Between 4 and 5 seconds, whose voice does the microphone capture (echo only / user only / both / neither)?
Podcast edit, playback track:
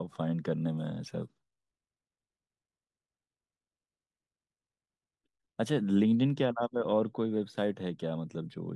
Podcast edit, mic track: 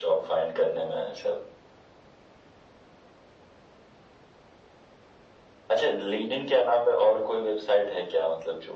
neither